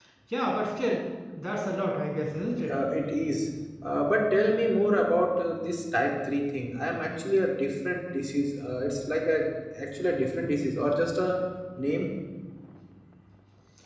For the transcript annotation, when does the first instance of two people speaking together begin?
none

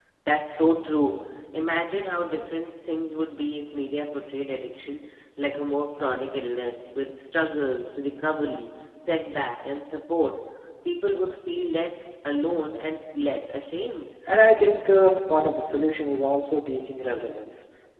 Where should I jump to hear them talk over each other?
none

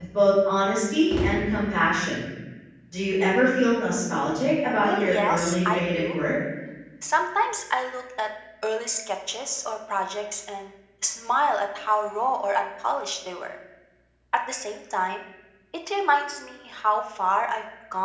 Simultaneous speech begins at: 4.8 s

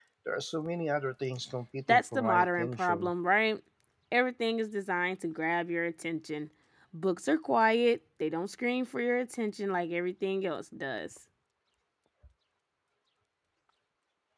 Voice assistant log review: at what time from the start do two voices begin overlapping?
1.9 s

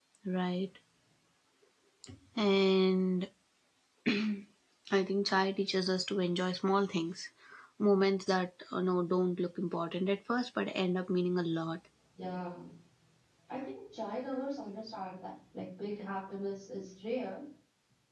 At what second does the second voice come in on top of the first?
none

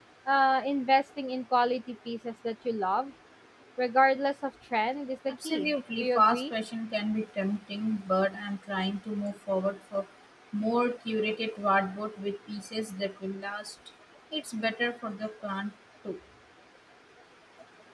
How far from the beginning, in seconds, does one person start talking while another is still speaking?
5.3 s

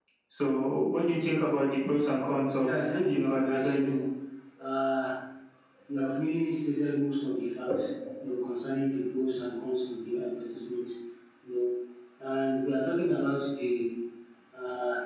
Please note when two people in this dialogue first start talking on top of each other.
2.6 s

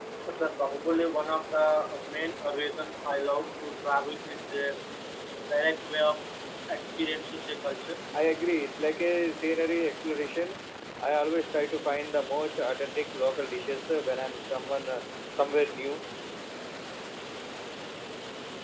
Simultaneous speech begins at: none

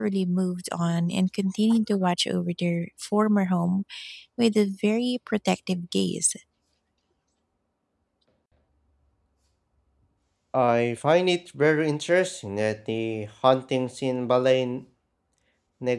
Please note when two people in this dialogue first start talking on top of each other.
none

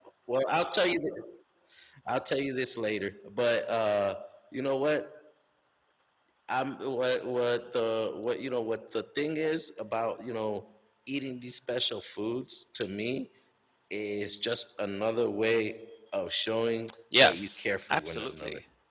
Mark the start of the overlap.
17.1 s

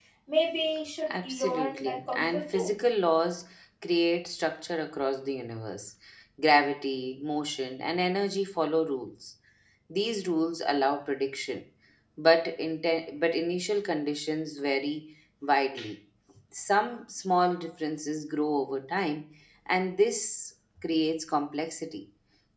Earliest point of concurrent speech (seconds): 1.1 s

